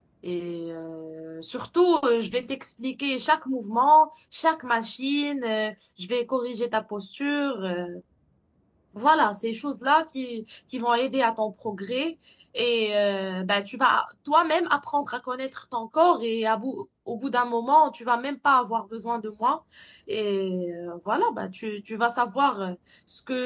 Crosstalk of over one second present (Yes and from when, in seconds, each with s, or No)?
No